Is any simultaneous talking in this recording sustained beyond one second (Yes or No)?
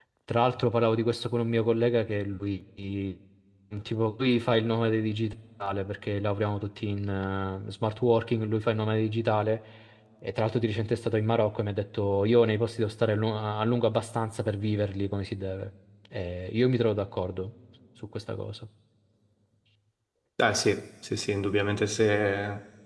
No